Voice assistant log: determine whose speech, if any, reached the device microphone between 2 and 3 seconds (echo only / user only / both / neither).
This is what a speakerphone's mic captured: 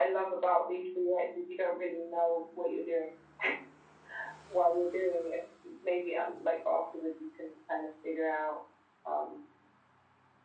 echo only